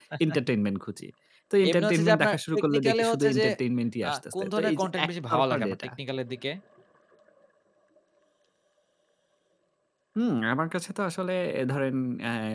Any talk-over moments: Yes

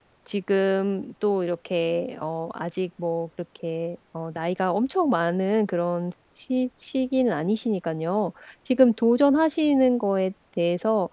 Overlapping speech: No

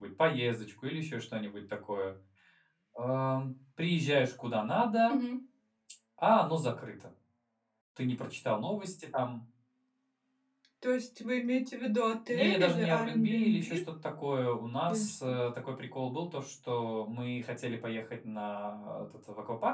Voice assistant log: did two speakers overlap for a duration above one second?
Yes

